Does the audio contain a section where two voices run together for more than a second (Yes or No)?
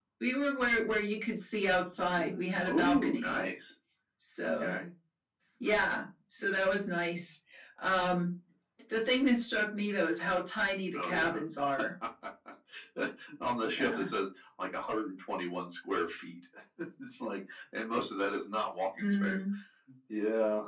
Yes